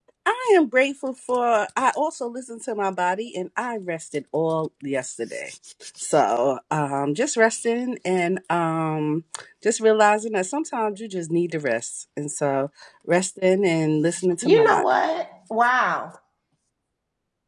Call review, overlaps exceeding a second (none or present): none